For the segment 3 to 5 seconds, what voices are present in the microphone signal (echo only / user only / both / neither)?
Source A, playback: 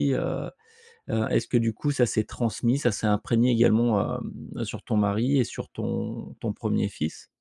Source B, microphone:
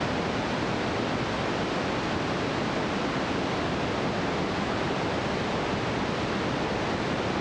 neither